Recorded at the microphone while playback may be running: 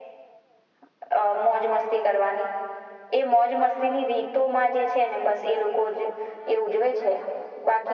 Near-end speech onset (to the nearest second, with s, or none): none